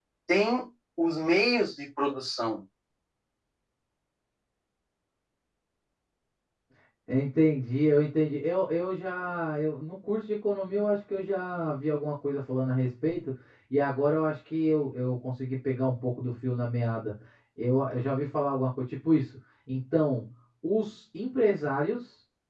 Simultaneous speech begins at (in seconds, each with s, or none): none